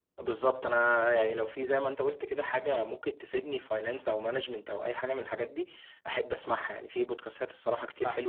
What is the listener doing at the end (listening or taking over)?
listening